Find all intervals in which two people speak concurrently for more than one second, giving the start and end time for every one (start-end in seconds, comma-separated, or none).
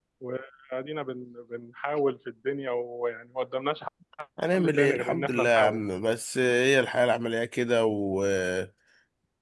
4.5-5.8